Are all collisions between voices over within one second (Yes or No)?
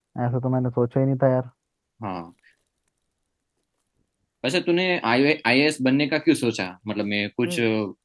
Yes